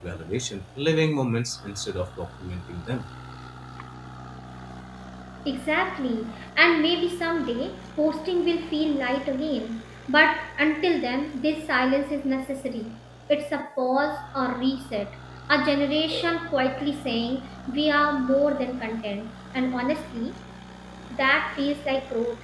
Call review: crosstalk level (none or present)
none